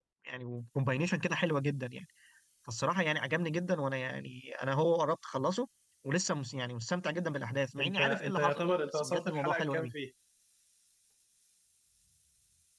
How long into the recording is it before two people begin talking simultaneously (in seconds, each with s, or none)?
7.8 s